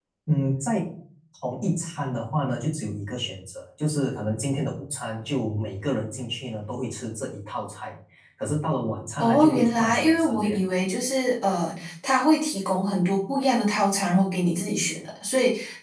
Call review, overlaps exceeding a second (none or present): present